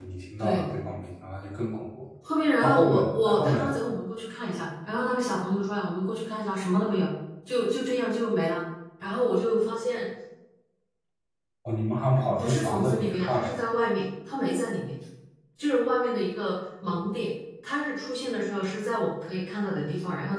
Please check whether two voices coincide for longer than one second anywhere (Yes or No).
Yes